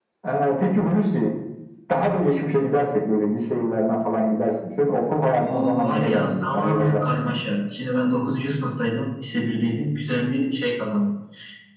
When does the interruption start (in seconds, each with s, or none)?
5.3 s